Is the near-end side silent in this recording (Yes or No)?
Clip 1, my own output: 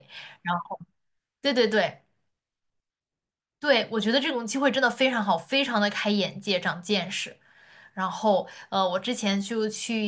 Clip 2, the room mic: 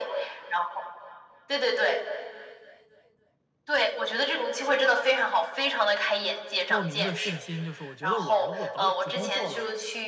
No